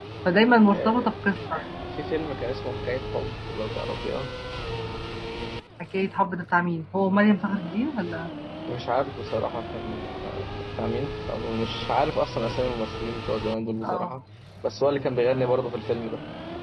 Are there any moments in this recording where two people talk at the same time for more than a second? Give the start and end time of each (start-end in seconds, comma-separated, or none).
none